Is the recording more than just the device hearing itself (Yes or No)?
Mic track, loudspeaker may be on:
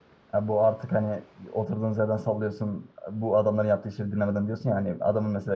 Yes